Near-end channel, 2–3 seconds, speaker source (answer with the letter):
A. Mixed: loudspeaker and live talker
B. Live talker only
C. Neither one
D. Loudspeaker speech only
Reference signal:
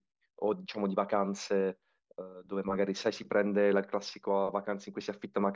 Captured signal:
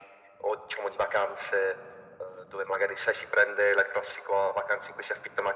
D